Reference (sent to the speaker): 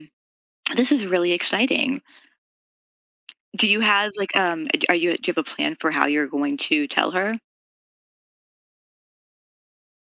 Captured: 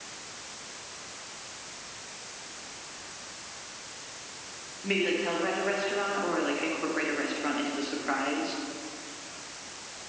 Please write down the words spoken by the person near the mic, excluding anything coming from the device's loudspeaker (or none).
Maybe like tell her at a restaurant or like incorporate a restaurant into the surprise.